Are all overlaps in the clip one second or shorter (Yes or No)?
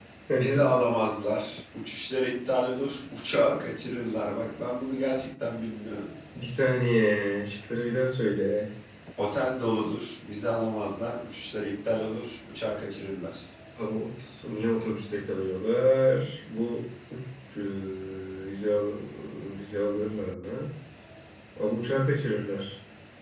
Yes